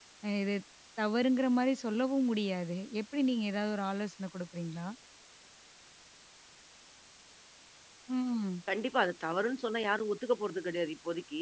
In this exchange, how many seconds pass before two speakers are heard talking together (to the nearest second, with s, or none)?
none